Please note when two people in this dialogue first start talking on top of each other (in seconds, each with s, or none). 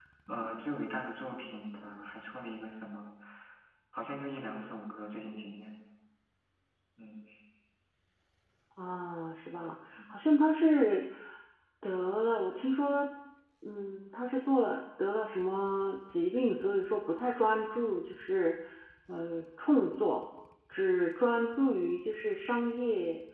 none